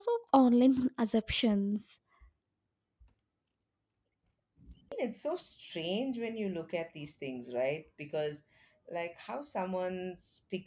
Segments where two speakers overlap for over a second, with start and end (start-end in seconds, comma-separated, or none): none